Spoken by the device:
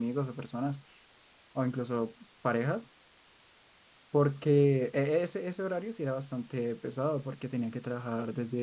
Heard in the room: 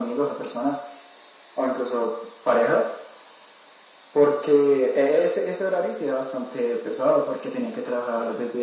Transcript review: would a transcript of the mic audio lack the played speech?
No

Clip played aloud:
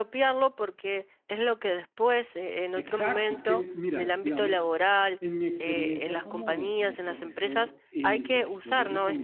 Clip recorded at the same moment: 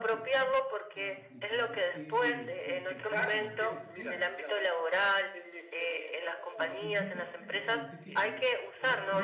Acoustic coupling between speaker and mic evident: Yes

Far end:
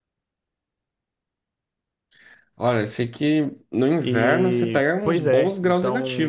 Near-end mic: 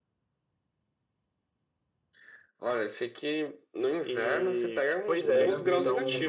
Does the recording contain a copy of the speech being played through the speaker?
Yes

